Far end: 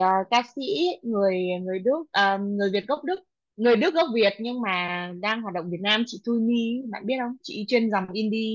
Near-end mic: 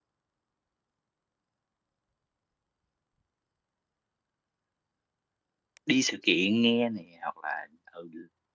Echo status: none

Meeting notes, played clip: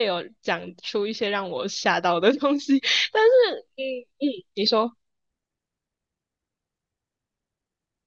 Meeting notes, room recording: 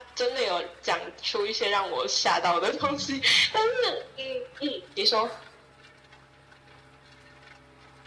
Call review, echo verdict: present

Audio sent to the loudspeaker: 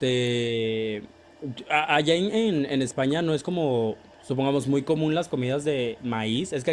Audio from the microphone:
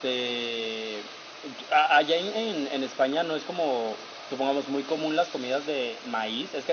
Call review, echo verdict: present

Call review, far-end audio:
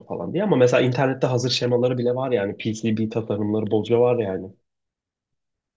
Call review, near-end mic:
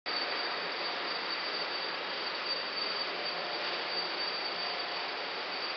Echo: none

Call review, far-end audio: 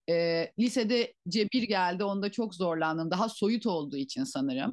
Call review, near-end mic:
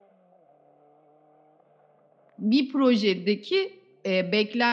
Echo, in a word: none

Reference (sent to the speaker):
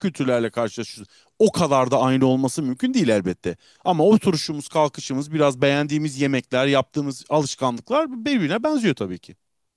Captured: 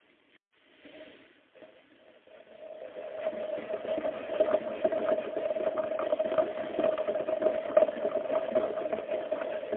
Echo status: none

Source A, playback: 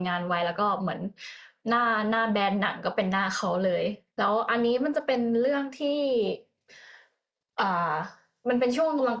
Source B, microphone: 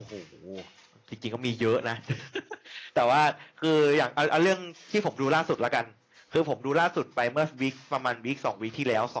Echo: none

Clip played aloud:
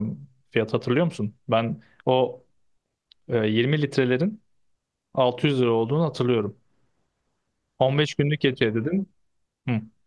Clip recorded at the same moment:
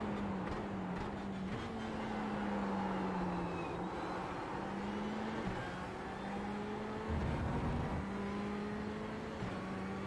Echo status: none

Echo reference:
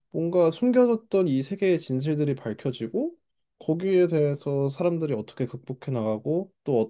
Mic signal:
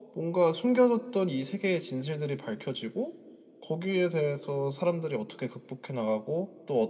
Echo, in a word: present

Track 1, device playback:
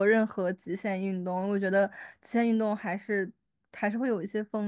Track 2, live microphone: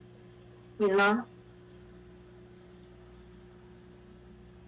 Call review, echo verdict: none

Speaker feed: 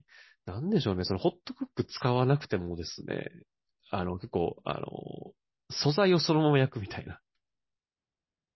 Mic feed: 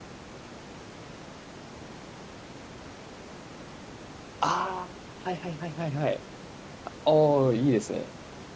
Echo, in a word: none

